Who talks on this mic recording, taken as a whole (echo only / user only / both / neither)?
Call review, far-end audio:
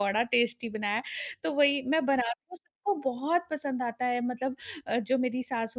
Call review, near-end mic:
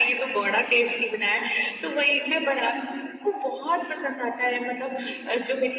echo only